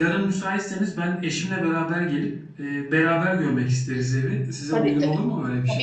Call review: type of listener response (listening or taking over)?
taking over